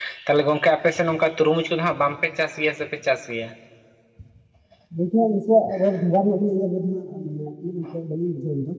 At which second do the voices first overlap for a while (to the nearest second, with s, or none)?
none